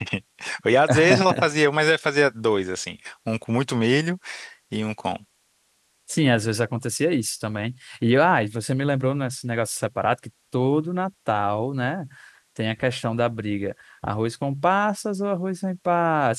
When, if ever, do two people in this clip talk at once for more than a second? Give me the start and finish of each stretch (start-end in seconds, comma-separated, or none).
none